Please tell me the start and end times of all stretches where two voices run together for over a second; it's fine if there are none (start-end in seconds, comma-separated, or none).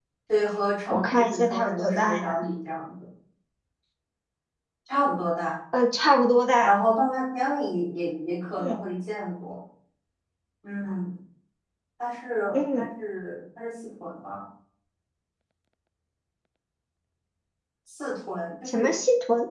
0.9-2.5